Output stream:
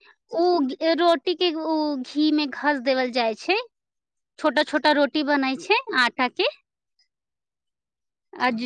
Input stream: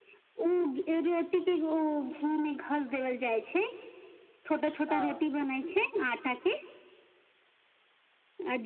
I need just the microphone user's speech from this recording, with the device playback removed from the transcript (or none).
हँ